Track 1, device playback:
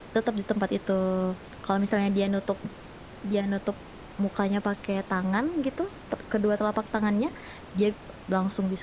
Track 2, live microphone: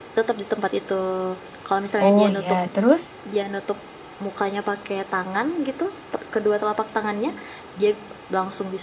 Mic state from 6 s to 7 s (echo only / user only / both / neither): echo only